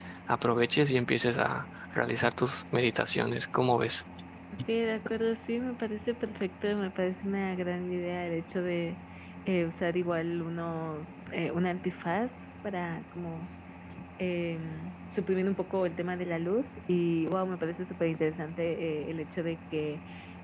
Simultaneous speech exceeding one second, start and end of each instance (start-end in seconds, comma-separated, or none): none